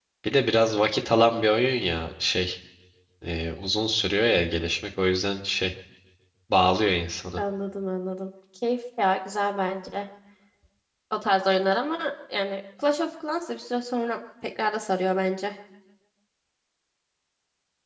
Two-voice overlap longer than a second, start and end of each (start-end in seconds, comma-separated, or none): none